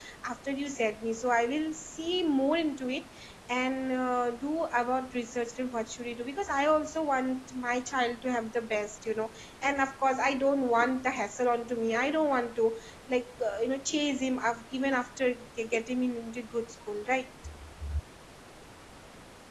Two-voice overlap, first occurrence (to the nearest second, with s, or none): none